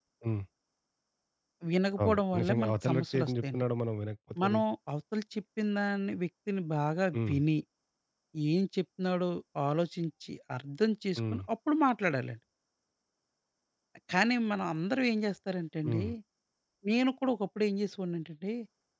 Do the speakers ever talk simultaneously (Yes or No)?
Yes